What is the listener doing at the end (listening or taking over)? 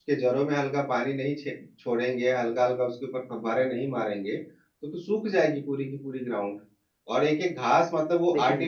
listening